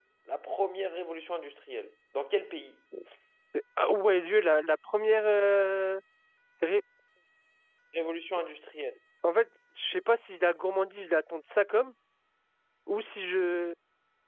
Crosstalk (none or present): none